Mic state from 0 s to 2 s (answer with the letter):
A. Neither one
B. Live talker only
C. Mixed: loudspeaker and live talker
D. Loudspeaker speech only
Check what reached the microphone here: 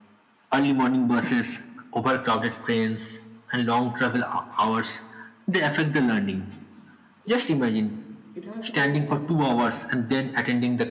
D